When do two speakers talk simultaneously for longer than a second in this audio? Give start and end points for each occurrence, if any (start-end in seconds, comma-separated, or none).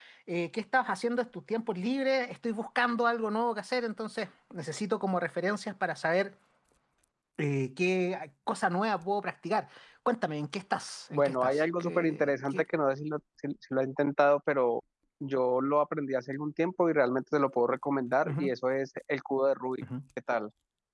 11.1-12.6